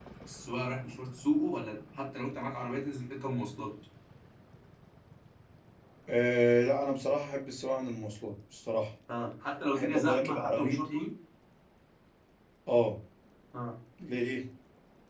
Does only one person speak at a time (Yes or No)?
No